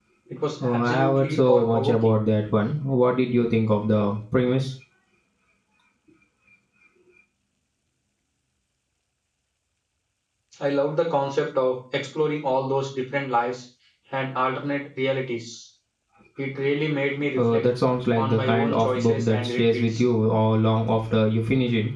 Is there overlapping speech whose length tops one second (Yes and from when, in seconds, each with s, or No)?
Yes, from 0.6 s